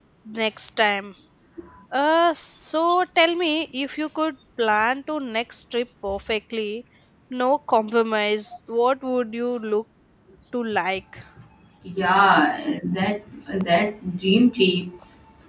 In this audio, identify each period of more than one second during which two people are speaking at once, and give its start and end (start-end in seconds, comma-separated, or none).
none